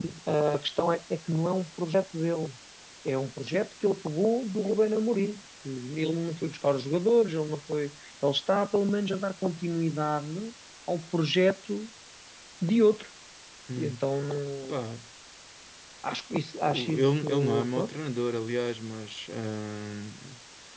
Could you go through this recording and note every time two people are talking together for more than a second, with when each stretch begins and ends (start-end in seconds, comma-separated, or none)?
16.7-17.9